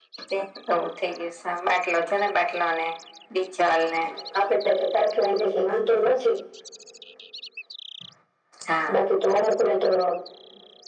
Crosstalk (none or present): none